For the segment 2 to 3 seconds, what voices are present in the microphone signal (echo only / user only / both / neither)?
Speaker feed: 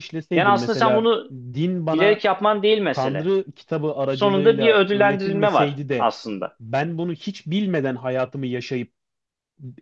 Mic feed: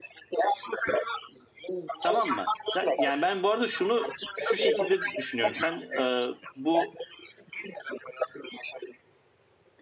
both